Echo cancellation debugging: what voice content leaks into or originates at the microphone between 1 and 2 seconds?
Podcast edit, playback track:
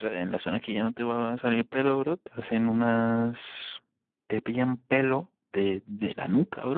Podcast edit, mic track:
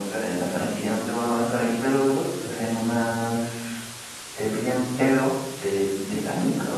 echo only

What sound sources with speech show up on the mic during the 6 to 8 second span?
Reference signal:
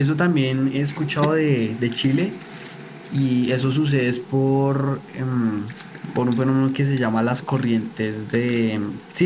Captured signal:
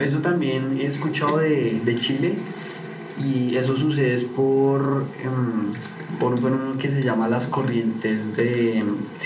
echo only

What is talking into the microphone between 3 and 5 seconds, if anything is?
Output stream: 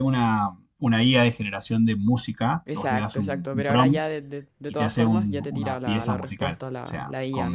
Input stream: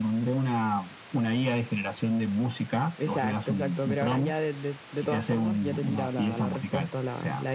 echo only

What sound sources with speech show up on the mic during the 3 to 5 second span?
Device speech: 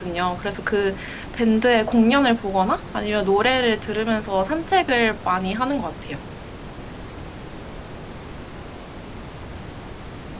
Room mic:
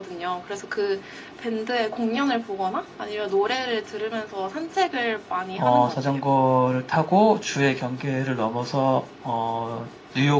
echo only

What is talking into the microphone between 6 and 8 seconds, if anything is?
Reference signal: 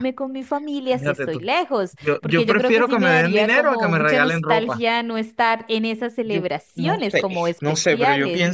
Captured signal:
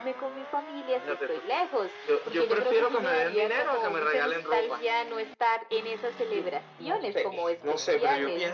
echo only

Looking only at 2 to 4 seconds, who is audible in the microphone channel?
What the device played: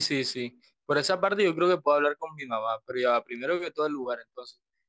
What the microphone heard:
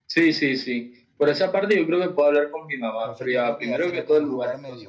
both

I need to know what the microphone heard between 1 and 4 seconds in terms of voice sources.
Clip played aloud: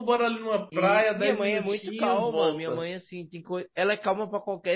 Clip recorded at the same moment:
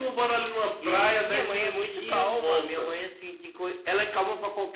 echo only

